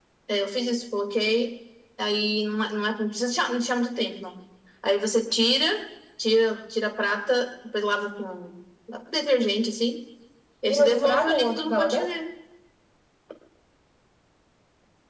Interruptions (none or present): present